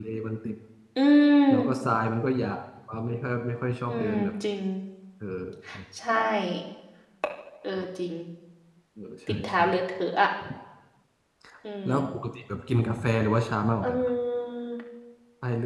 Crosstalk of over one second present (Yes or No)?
No